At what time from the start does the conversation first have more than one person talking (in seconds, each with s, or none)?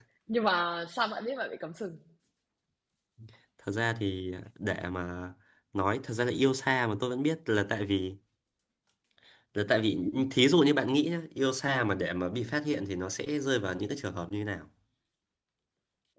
none